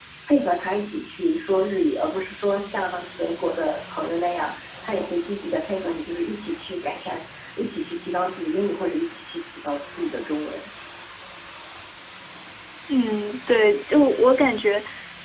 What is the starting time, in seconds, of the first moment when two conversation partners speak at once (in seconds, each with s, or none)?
none